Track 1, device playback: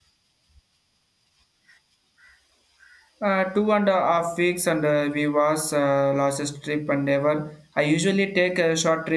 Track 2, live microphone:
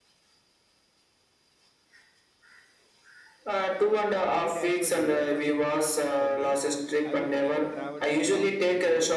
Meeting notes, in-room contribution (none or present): present